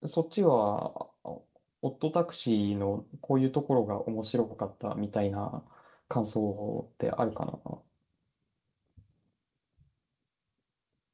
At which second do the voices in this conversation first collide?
none

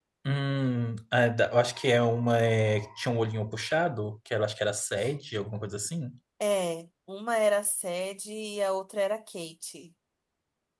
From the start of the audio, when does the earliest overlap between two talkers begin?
none

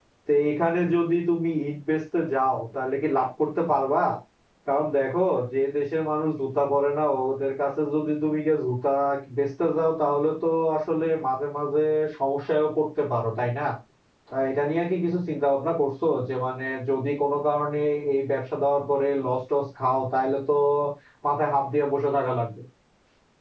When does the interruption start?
none

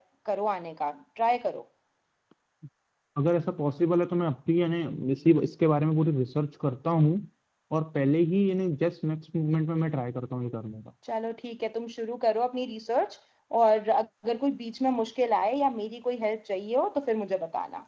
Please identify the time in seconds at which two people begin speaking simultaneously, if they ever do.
none

